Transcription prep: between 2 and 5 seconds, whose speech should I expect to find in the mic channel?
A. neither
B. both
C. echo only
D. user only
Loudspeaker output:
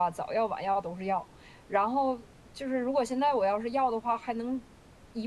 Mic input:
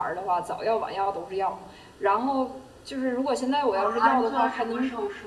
B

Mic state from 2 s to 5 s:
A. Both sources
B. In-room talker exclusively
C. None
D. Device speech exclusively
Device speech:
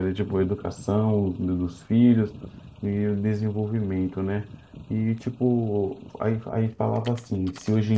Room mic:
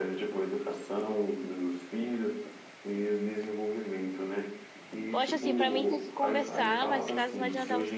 D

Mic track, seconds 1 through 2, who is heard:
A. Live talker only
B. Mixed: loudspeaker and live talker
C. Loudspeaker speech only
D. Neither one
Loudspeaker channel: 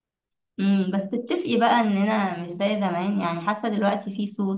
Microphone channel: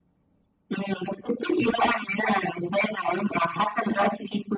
C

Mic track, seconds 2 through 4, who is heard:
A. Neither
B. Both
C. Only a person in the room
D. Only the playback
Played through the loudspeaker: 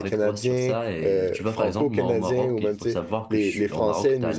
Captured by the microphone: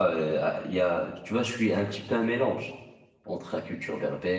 C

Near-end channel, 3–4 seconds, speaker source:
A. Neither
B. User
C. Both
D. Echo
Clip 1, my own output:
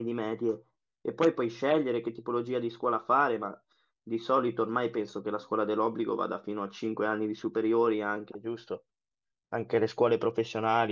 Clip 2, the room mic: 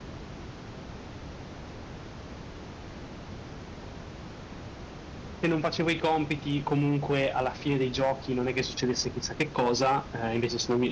A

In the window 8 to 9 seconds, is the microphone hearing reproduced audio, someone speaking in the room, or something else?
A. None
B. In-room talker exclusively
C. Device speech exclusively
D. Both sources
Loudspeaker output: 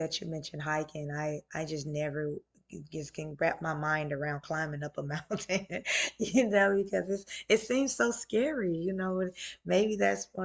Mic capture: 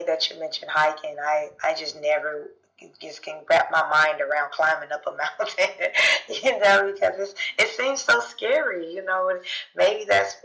C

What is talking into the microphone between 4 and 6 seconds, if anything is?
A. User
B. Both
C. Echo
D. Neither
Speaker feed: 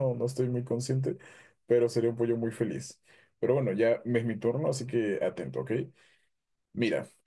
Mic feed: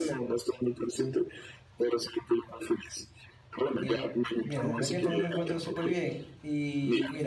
B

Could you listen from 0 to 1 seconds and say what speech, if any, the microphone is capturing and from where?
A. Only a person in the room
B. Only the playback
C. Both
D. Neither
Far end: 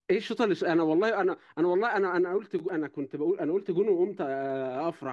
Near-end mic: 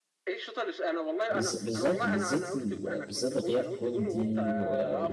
B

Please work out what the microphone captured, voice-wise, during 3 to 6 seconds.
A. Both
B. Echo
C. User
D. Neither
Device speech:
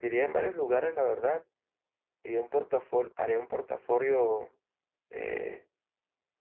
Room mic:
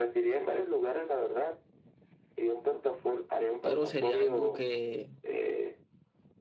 A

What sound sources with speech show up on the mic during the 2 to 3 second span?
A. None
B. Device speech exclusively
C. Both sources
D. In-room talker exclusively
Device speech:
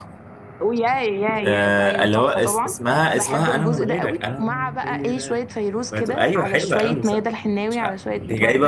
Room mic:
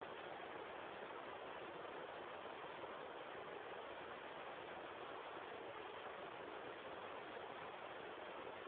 A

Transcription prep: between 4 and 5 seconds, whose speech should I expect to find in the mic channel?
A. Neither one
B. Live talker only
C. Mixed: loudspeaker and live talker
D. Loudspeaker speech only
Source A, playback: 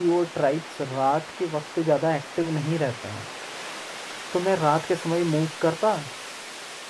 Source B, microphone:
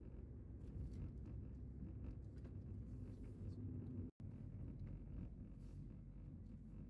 A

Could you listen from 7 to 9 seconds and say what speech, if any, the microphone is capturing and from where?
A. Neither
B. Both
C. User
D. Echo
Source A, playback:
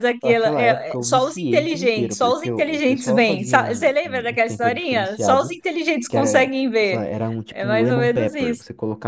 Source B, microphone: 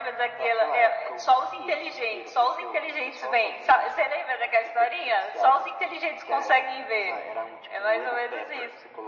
D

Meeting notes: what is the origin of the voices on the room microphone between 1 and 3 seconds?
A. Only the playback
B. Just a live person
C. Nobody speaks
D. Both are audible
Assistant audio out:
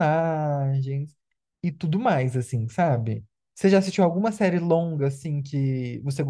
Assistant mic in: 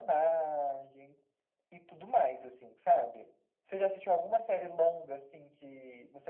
A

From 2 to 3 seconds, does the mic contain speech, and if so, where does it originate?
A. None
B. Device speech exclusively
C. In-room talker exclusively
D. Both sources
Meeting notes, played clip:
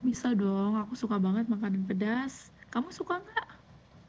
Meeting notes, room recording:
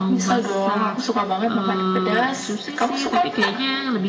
D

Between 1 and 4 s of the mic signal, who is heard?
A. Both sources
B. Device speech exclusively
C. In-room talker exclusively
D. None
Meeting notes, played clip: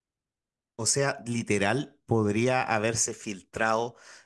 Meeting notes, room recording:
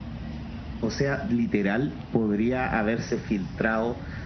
B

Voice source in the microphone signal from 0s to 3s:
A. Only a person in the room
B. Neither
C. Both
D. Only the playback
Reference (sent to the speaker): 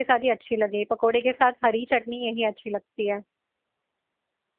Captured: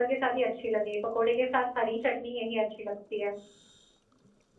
D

